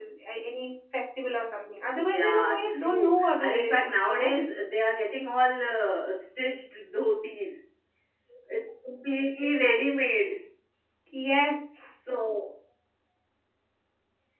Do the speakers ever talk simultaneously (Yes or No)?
Yes